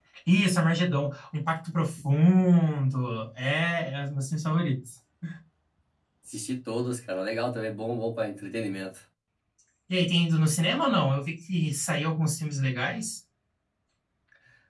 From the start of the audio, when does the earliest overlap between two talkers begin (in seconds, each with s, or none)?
none